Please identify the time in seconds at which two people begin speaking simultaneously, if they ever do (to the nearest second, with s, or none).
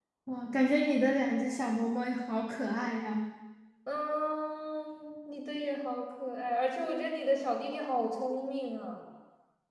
none